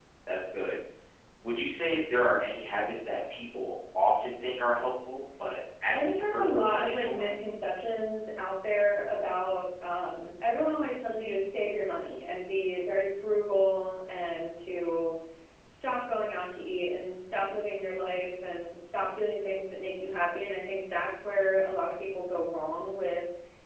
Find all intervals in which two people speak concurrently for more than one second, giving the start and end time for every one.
5.9-7.3

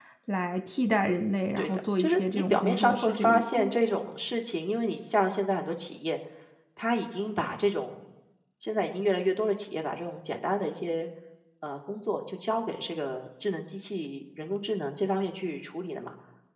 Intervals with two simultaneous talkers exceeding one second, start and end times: 1.6-3.7

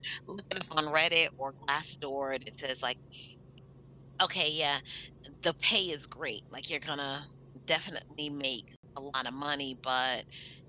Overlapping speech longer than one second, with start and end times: none

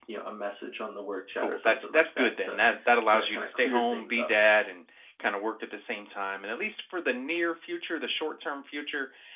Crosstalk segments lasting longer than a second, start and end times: 1.4-2.6, 3.1-4.3

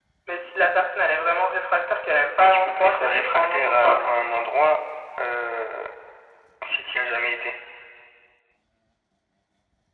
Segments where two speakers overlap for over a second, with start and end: 2.4-4.1

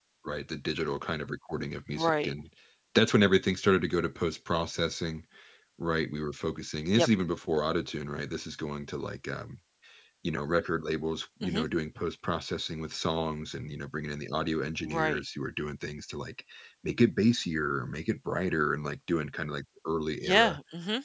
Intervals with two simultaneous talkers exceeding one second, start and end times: none

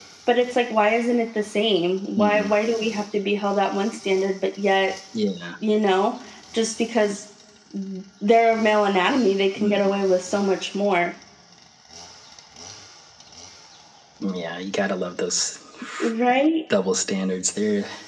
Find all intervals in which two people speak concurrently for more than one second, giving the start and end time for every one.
none

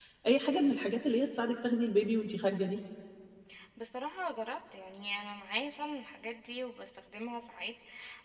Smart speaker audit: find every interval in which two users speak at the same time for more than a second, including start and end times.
none

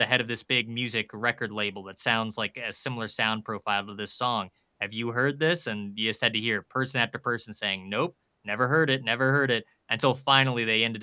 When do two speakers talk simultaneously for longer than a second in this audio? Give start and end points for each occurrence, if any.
none

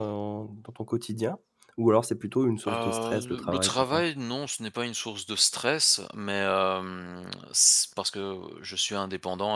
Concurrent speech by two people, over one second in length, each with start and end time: 2.6-4.0

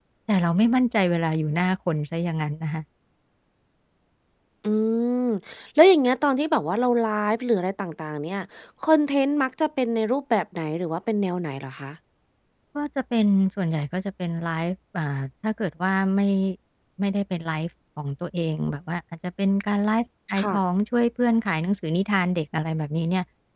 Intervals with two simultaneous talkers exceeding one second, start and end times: none

